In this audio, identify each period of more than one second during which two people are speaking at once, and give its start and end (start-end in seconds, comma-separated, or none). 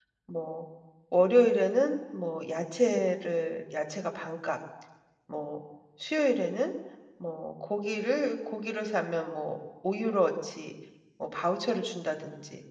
none